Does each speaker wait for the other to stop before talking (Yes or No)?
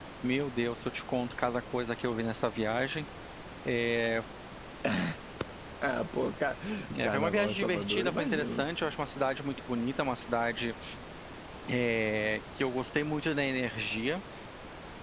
No